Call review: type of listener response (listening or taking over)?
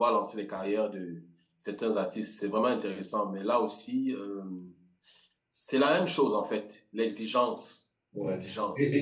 taking over